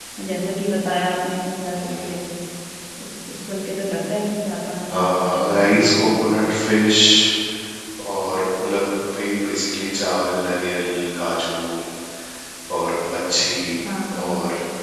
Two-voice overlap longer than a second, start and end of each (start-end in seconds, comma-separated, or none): 4.9-6.1